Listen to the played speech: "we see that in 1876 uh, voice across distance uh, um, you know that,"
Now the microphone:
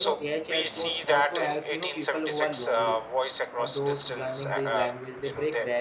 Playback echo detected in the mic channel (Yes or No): Yes